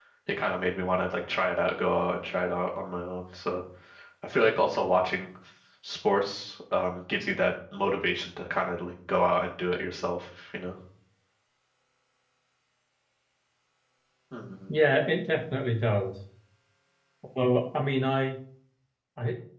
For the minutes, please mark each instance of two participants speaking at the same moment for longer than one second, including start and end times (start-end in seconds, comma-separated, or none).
none